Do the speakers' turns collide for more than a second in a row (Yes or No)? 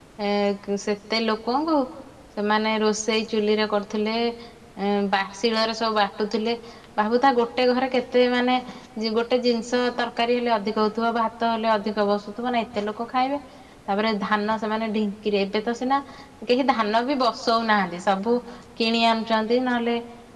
No